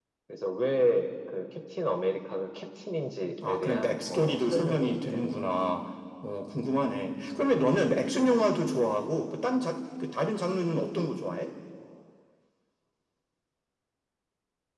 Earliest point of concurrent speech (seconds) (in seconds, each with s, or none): 3.4 s